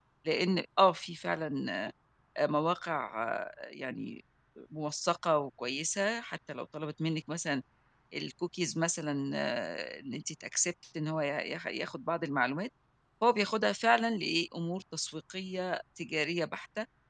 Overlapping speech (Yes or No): No